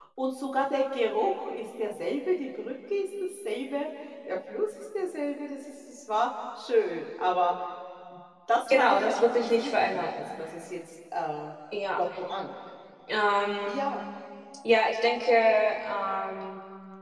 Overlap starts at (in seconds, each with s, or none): 8.7 s